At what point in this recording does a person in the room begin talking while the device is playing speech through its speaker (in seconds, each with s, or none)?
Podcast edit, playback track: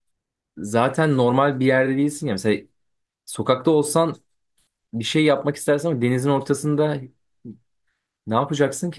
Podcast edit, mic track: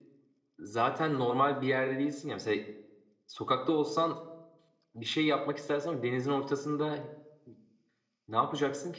none